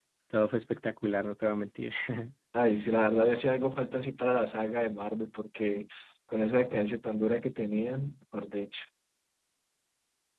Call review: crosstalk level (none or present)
none